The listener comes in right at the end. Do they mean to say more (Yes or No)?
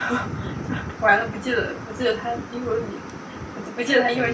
Yes